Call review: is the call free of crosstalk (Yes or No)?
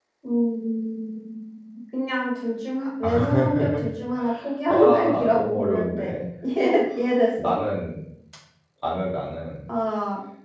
No